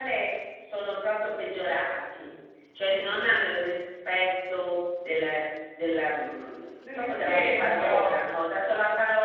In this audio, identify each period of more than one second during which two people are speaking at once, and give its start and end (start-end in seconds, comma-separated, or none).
6.8-8.2